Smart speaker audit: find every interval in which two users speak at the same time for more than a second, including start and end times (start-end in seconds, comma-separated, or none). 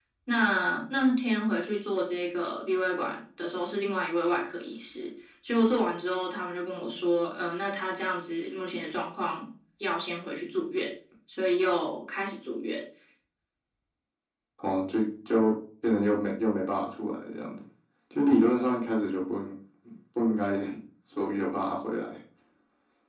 none